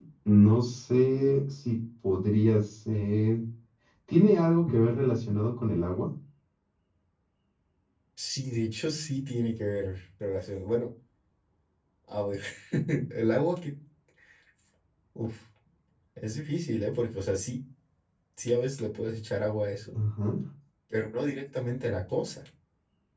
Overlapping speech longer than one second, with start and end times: none

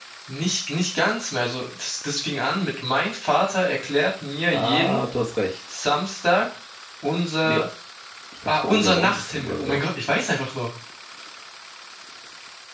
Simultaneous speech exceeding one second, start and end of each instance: 8.5-9.8

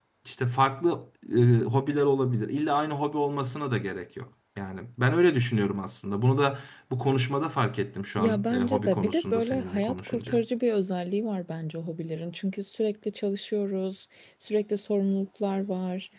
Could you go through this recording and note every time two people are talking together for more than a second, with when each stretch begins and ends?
8.2-10.3

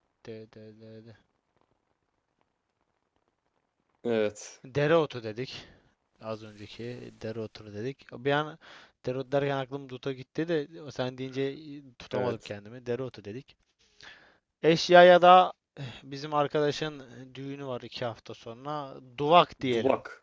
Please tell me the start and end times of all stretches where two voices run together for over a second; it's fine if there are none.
none

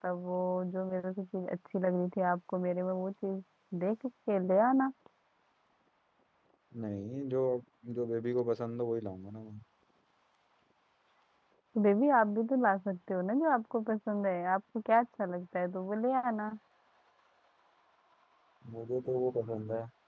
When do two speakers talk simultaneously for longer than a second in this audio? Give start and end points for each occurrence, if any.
none

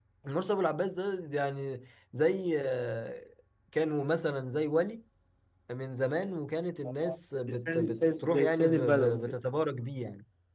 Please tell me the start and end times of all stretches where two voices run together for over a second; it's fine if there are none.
7.5-9.4

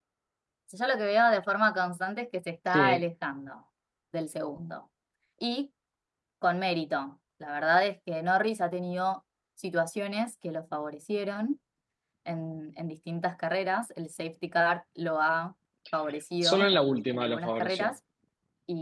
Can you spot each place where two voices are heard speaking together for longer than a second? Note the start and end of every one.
16.4-17.9

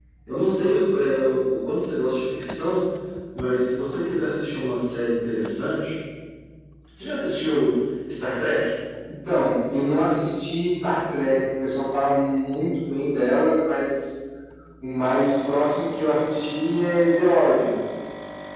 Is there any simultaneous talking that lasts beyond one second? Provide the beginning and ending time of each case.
none

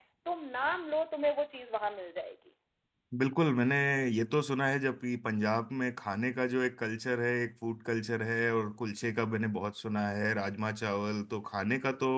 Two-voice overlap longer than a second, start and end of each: none

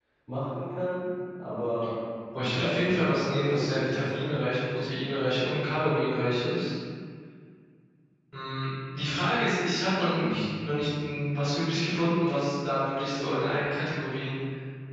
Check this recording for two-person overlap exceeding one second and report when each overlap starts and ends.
2.4-4.2

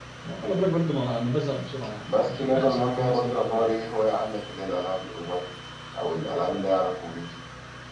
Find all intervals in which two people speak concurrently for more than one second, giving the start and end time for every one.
2.1-3.6

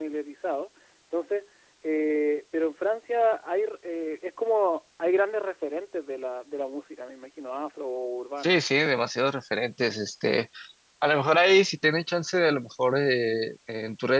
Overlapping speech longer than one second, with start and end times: none

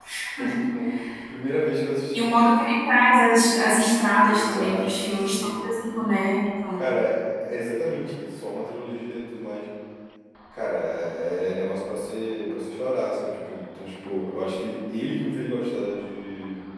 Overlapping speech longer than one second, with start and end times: 4.3-5.7

